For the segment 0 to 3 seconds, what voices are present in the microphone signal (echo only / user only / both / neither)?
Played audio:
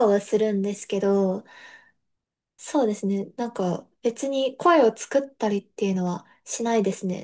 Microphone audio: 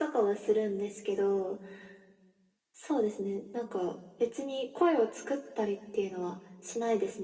echo only